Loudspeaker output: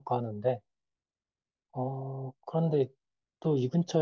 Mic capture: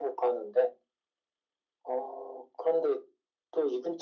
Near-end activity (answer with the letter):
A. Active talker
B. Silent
B